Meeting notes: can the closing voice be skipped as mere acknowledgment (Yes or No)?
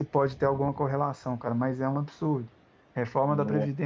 Yes